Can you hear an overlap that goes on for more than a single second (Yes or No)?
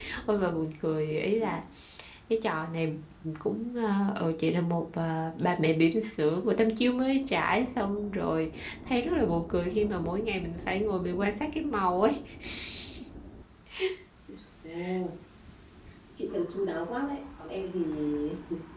No